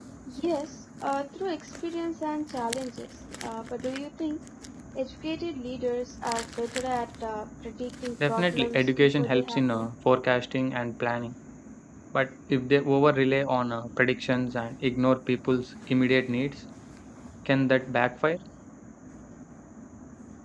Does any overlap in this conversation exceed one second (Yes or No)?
Yes